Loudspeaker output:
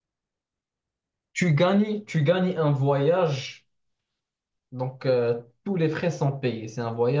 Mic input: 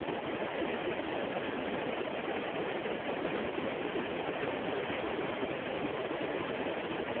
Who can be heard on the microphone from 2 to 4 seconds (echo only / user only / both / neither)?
neither